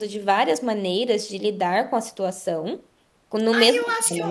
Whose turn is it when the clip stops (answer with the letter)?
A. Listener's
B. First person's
A